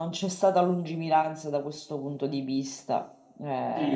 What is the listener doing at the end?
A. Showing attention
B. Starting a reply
B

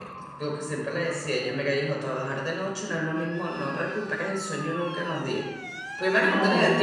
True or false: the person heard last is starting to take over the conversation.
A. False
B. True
A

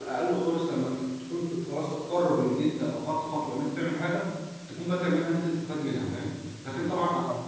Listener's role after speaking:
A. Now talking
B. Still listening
B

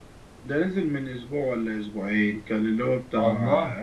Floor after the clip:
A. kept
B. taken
A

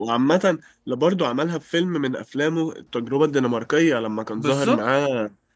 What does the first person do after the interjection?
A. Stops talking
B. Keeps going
B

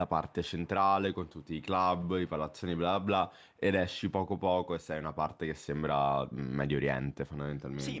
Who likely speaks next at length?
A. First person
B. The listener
B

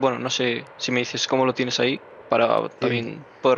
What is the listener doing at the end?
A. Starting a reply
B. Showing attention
A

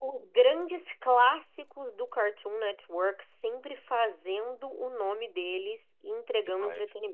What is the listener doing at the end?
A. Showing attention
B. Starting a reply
B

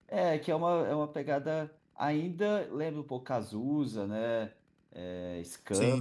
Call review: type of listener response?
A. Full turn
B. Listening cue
B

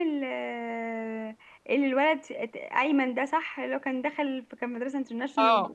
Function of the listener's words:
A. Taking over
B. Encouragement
A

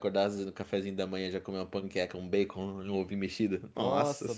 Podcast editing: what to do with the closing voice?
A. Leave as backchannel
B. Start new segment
B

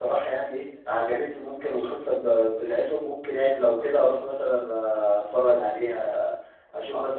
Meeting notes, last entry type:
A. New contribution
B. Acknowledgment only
A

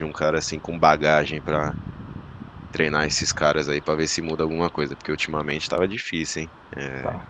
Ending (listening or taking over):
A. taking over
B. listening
B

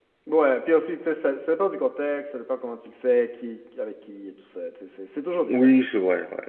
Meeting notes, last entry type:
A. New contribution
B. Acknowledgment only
A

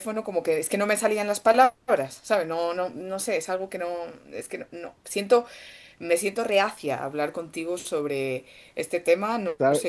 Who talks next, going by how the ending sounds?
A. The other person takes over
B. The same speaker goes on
A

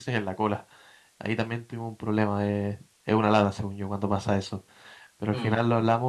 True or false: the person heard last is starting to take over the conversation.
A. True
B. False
B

